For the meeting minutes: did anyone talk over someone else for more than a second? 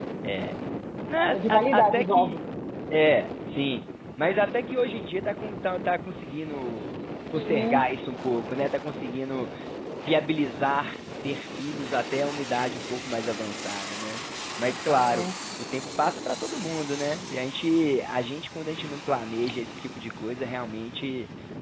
Yes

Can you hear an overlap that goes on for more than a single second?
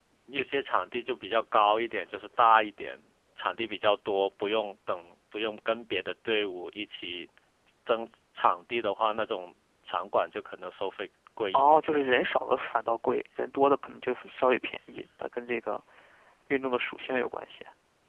No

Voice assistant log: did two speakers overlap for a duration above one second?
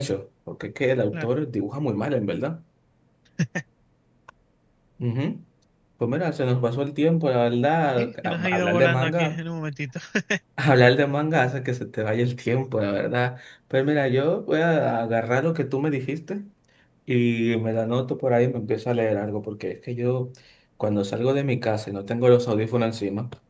Yes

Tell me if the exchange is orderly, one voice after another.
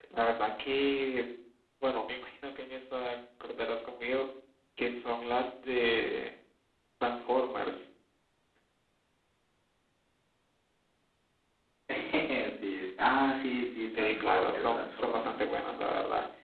No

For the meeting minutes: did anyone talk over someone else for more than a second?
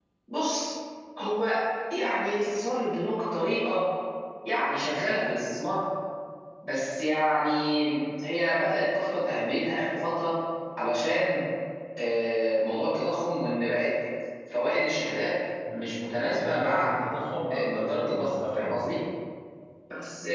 Yes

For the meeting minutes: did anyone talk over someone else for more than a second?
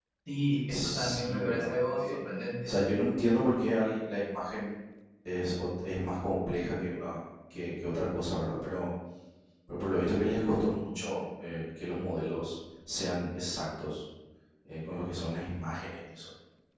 Yes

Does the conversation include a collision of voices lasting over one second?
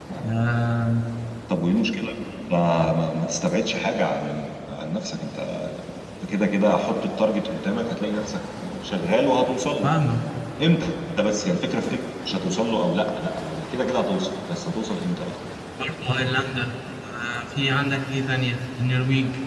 No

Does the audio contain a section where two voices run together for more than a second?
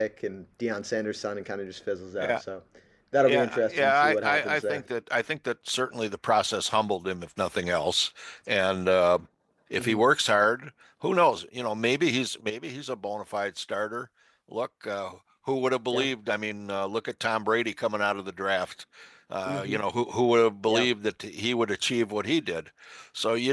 Yes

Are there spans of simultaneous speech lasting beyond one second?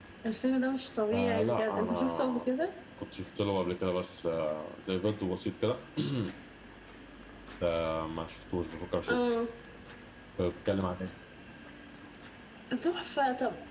Yes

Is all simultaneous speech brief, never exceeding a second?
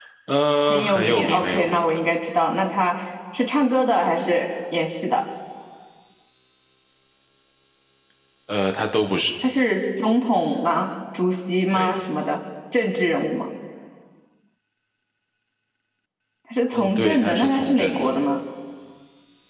No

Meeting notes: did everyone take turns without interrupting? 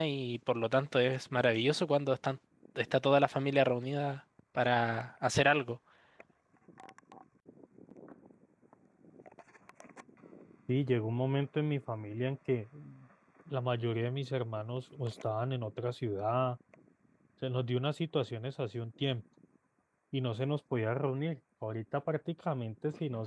Yes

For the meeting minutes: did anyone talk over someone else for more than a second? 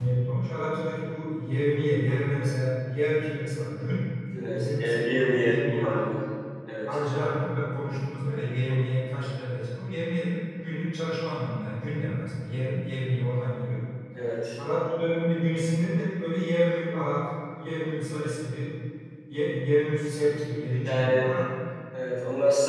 Yes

